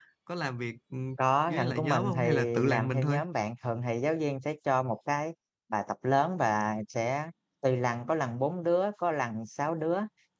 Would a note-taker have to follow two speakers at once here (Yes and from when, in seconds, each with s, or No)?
Yes, from 1.5 s